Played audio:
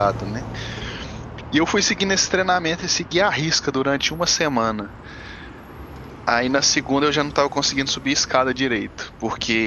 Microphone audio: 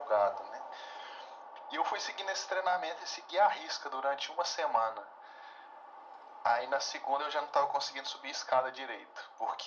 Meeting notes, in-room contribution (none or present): none